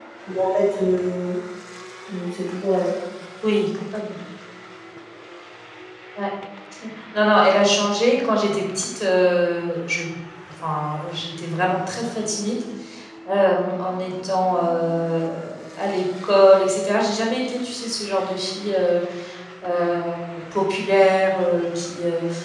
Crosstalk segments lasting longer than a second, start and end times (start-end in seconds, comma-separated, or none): none